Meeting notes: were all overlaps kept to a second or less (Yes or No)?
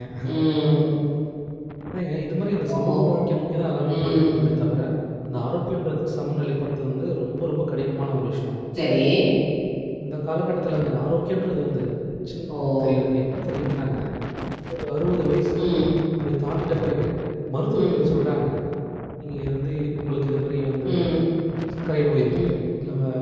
Yes